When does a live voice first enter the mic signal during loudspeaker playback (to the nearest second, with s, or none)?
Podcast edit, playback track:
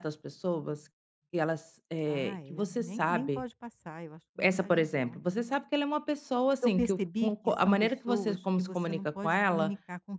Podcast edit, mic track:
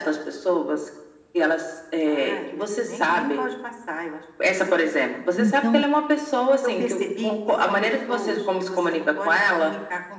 5 s